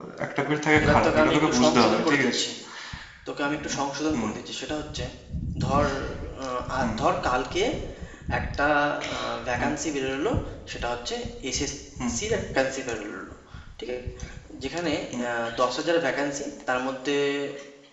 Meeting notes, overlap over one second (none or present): present